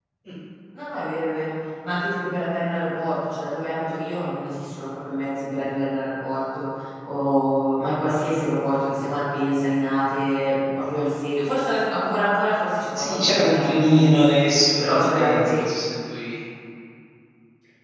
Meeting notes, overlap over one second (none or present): present